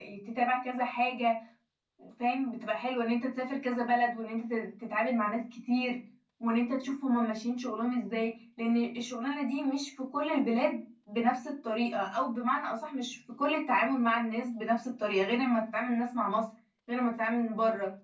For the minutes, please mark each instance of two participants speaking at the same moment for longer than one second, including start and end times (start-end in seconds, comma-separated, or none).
none